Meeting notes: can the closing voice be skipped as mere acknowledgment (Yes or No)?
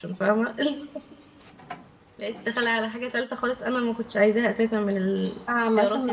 No